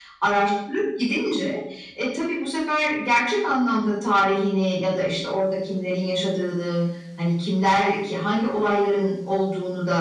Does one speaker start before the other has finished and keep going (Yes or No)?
No